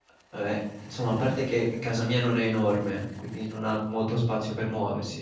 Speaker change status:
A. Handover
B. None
B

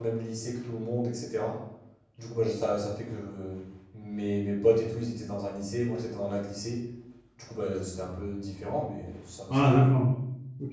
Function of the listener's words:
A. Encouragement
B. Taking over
B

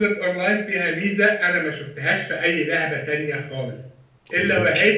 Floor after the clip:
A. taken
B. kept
B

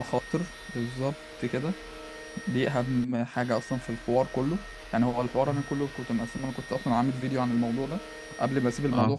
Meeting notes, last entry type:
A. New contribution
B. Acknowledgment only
B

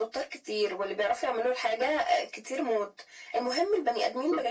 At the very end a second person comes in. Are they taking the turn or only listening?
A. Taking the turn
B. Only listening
B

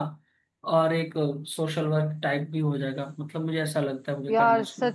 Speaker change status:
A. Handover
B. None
A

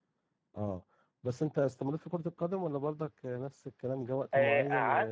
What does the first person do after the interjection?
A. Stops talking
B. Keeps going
A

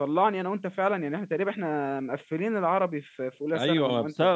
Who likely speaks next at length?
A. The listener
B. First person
A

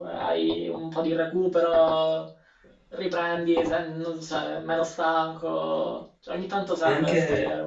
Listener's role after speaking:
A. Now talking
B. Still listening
A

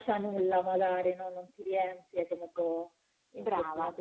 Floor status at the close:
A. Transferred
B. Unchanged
B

